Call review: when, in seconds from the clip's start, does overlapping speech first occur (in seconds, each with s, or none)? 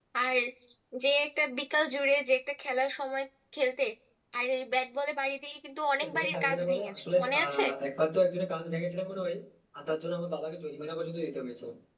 6.0 s